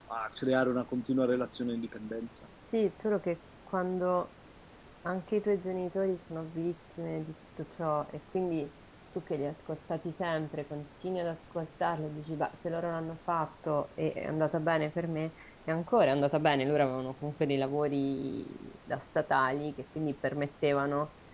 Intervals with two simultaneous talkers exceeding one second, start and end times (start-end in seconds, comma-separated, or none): none